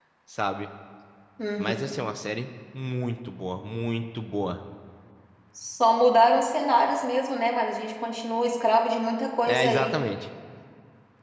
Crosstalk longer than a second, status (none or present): none